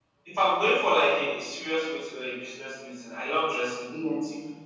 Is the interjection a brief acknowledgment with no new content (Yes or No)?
Yes